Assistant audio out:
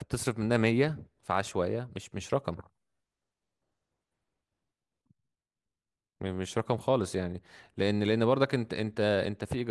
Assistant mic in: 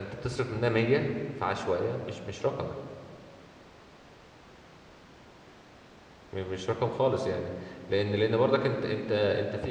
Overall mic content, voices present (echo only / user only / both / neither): echo only